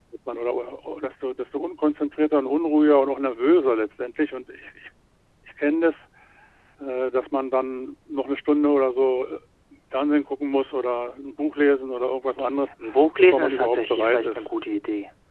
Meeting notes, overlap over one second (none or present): present